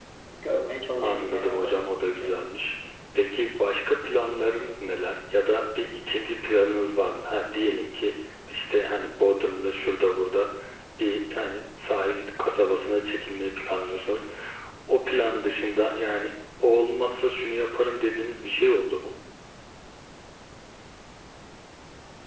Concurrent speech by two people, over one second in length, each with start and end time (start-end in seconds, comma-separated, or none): 1.0-2.3